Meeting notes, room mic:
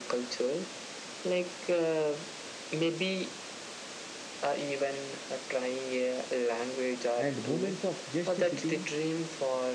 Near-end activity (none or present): present